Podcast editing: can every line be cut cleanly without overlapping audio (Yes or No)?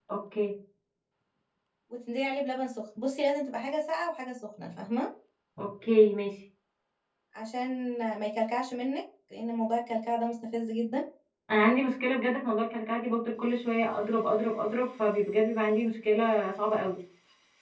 Yes